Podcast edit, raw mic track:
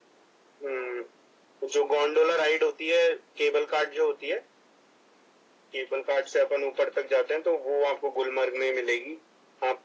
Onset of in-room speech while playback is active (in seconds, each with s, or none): none